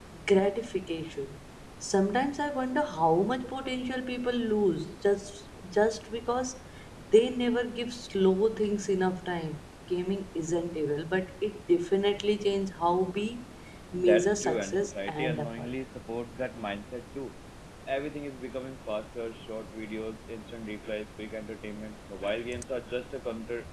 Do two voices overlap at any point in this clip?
Yes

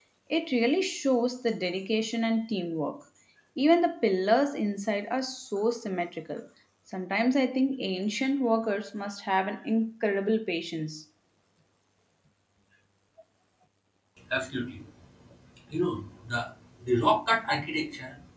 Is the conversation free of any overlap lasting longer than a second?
Yes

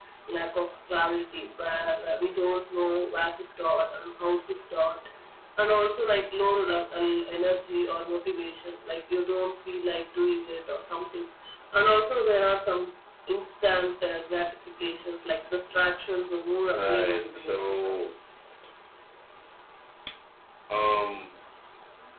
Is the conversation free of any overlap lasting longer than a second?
No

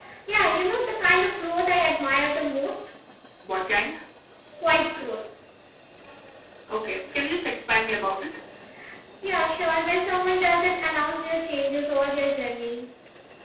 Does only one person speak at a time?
Yes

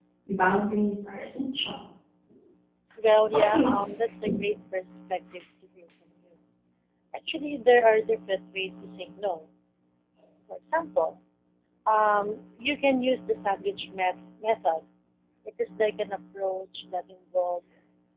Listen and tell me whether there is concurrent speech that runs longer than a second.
No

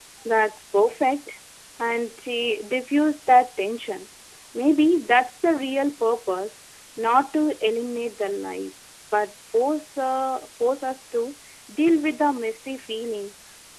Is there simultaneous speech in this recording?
No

